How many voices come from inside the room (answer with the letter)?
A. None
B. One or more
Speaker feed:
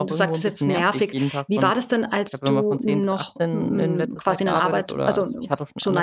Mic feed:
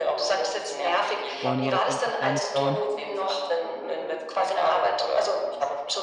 B